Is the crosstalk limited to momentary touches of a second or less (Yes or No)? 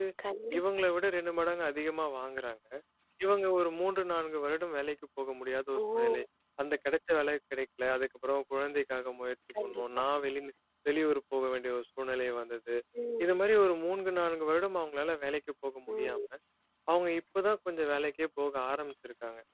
Yes